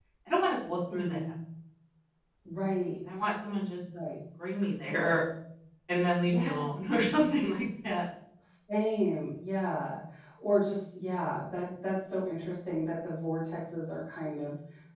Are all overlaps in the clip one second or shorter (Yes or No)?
Yes